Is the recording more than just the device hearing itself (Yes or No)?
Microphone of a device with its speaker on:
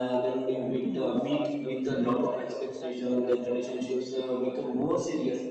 Yes